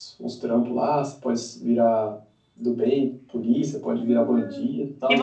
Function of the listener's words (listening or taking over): taking over